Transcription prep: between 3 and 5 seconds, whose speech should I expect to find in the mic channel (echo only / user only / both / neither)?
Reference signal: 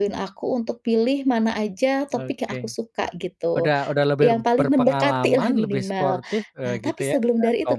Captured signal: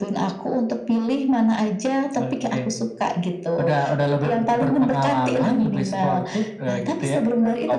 echo only